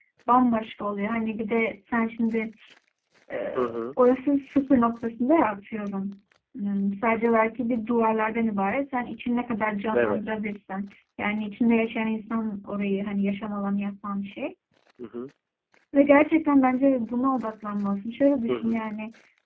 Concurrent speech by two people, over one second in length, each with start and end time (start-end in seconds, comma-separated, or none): none